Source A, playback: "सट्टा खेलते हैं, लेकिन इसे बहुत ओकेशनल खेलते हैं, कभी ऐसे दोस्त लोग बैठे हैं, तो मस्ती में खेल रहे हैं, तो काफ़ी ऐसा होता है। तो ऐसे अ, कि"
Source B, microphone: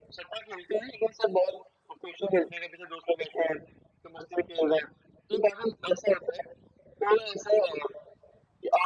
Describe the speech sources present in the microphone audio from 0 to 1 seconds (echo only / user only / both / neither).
echo only